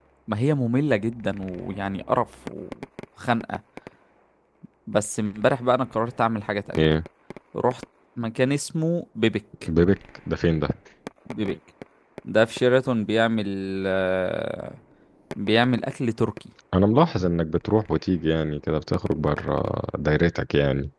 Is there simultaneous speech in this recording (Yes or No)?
No